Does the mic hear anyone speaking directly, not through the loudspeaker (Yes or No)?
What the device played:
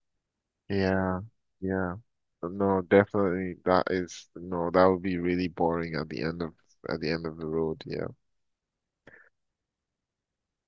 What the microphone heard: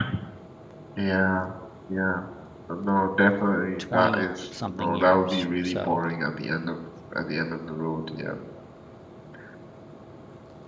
Yes